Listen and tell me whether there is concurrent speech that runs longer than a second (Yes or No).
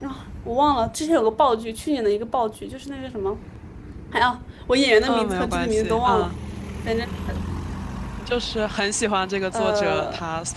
Yes